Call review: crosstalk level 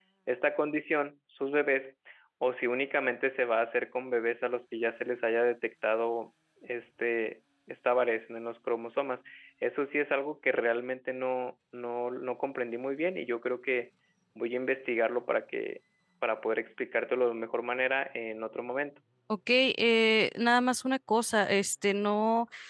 none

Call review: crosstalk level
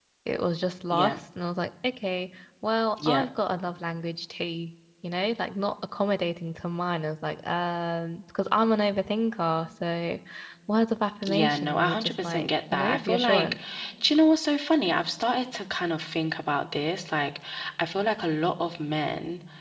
present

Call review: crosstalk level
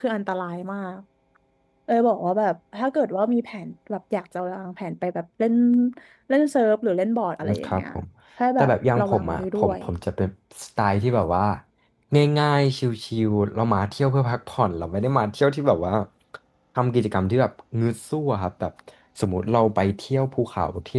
present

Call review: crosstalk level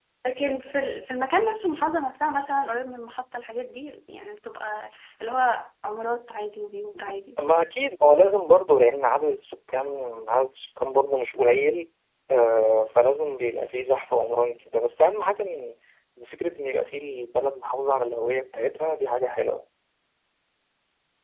none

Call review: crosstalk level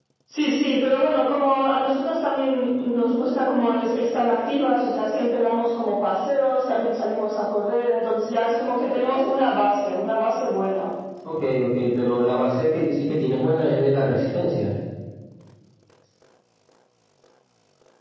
none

